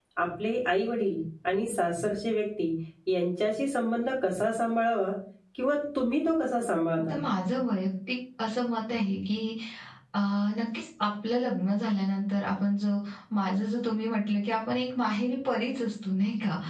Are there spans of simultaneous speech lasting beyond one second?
No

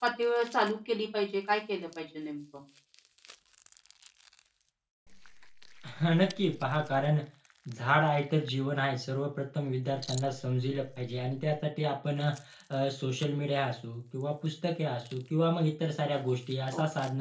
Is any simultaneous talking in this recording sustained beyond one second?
No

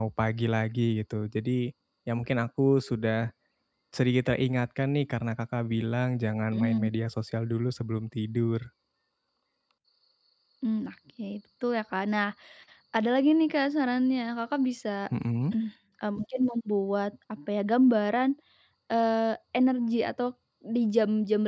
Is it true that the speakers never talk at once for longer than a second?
Yes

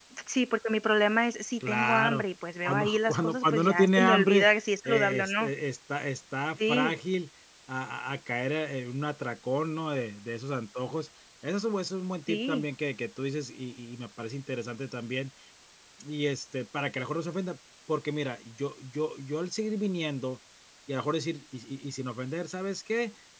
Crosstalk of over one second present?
Yes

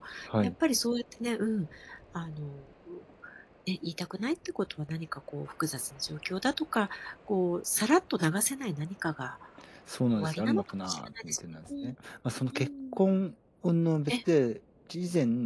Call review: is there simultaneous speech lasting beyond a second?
Yes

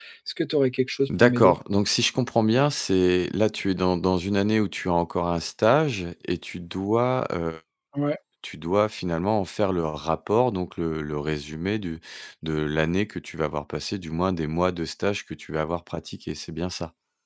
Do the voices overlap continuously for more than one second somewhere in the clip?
No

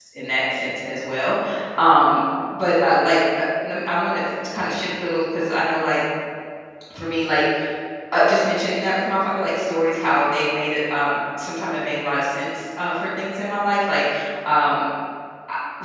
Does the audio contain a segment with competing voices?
No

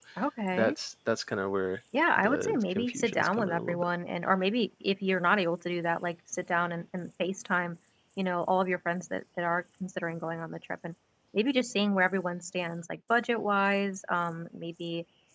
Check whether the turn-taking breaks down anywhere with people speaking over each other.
Yes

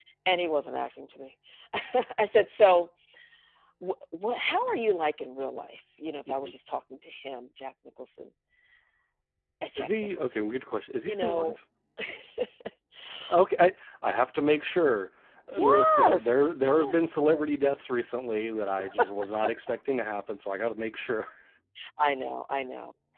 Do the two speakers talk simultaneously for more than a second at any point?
Yes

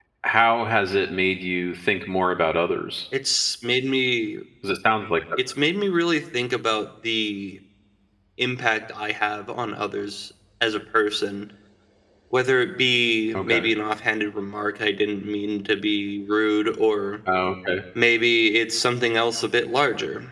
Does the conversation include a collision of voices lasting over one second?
No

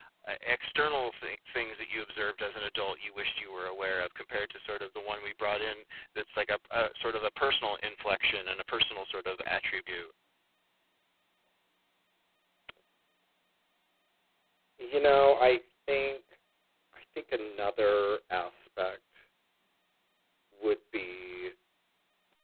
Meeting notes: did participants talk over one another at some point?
No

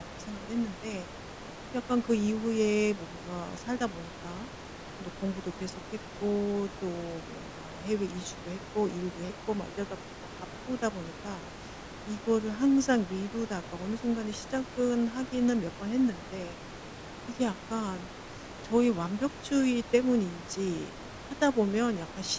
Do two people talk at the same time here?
No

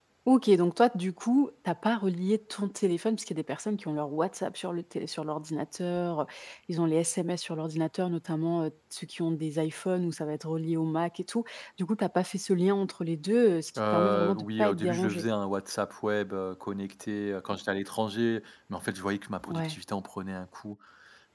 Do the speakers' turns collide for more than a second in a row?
Yes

